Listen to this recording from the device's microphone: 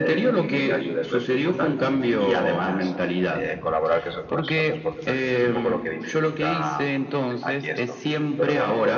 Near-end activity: none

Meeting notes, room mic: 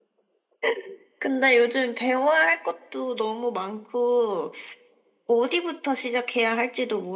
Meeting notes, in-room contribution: none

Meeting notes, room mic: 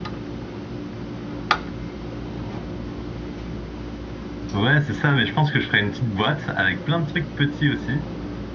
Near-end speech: present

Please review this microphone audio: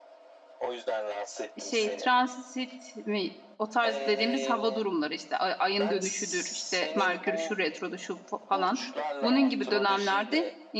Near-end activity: present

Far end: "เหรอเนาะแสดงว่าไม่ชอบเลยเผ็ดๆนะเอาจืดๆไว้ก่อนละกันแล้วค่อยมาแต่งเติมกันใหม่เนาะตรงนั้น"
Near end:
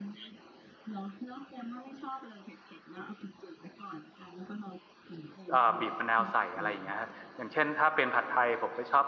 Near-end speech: present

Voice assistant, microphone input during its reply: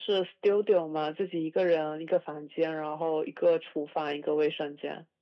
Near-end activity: none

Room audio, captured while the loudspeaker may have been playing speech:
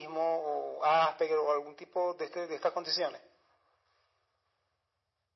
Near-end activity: none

